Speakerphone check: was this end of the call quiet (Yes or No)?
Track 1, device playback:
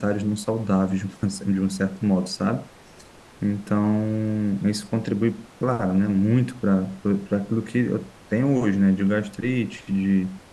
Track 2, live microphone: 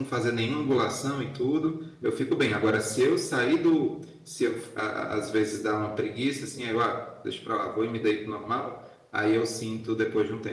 No